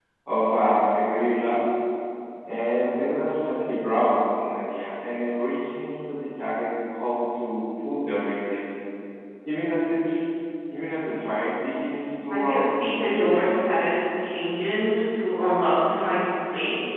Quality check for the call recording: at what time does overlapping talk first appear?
12.3 s

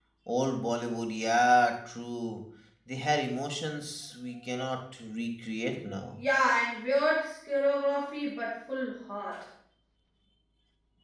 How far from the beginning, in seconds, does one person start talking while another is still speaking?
none

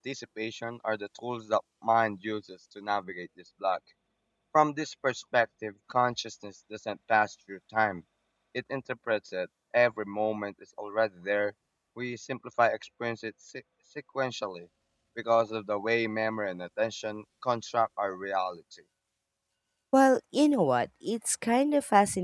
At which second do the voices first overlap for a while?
none

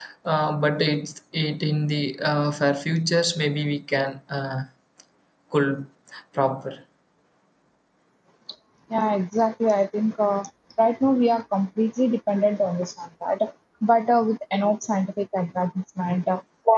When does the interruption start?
none

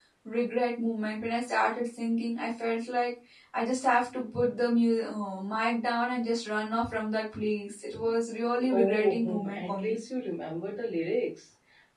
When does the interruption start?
8.7 s

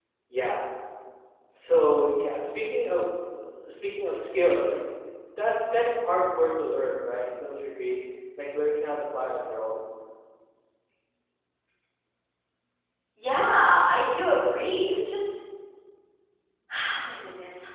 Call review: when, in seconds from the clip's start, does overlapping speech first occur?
none

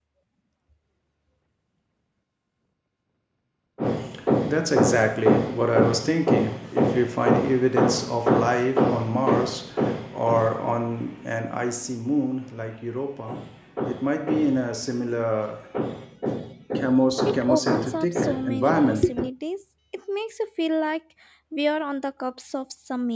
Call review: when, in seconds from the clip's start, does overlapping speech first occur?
17.3 s

